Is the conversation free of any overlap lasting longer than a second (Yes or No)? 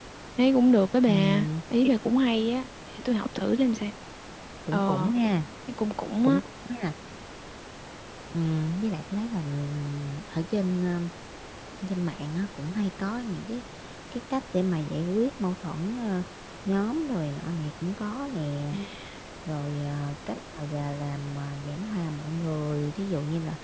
Yes